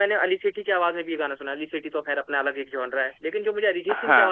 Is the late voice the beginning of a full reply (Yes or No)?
No